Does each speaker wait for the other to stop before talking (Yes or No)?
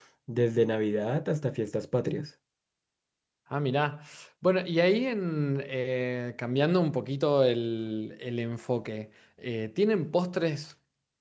Yes